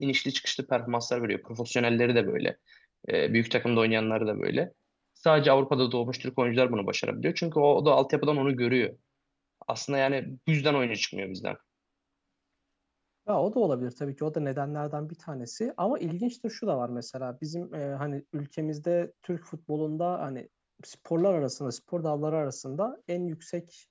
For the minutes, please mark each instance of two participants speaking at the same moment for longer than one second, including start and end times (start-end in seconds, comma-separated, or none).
none